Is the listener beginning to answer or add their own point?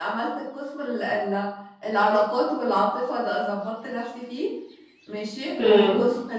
No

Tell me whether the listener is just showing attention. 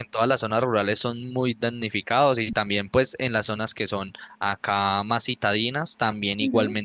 Yes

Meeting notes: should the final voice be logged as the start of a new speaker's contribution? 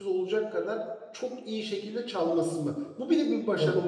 No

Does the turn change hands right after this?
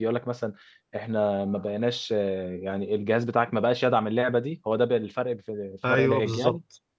Yes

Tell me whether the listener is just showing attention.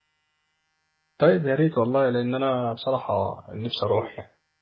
No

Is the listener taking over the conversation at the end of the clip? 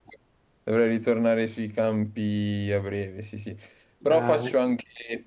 No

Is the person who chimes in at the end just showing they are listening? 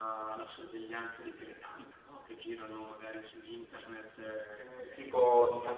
No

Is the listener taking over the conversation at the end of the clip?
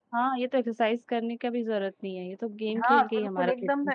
Yes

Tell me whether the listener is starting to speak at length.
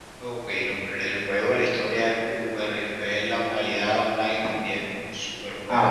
Yes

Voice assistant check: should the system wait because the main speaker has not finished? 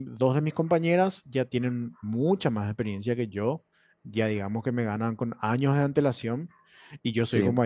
Yes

